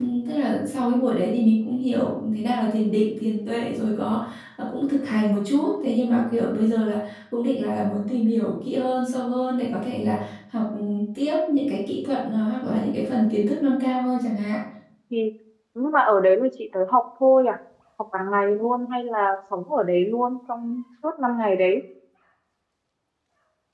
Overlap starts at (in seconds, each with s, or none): none